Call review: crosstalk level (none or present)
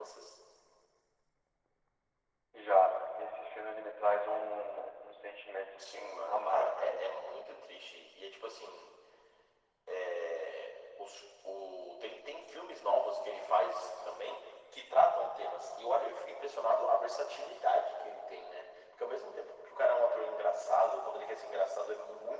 present